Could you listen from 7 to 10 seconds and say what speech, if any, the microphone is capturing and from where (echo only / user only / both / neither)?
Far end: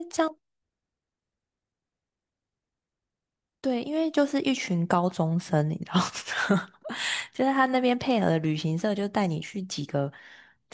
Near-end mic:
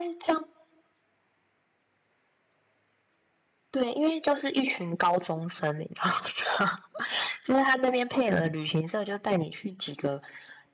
echo only